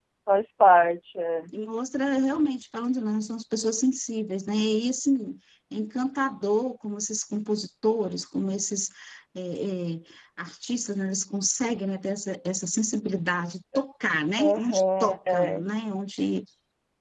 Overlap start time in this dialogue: 14.4 s

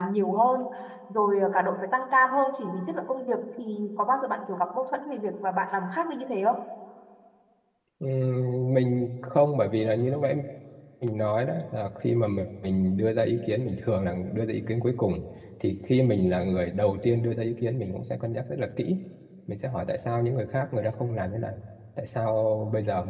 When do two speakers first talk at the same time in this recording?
none

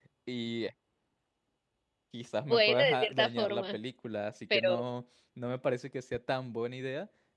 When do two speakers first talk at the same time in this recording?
2.4 s

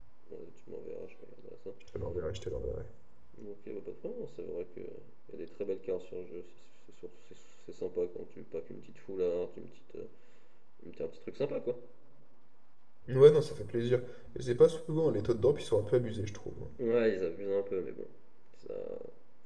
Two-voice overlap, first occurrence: none

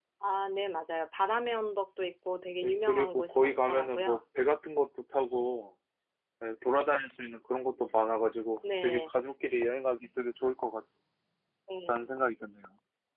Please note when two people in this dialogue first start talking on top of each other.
2.6 s

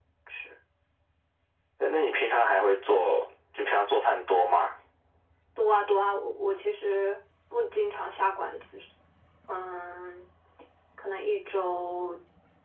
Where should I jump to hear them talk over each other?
none

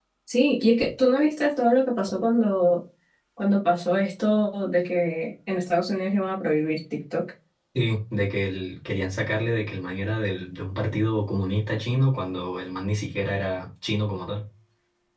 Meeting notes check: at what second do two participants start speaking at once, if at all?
none

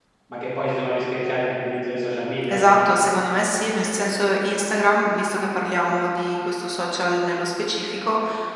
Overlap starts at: none

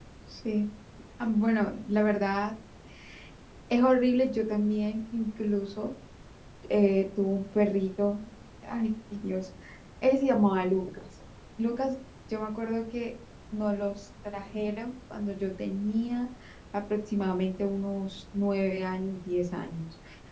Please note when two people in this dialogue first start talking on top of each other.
none

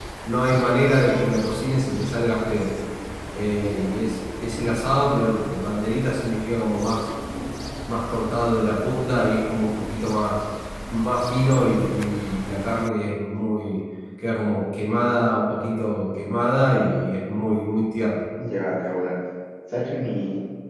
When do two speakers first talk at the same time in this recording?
none

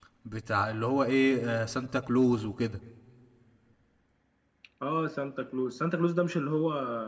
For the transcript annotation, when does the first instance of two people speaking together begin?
none

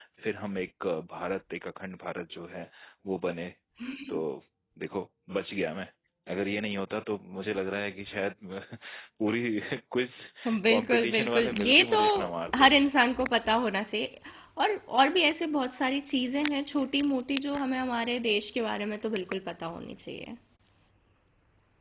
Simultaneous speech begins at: 10.7 s

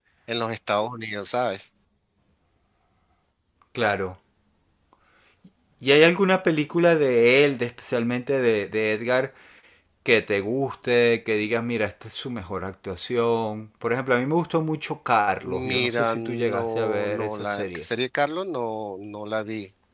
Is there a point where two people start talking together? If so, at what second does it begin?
15.4 s

